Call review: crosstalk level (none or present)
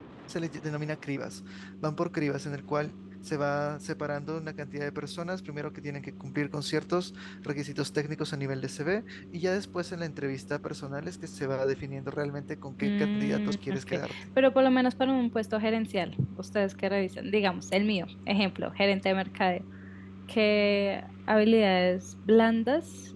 present